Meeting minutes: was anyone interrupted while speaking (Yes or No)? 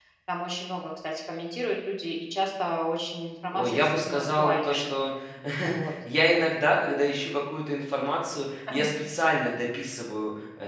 Yes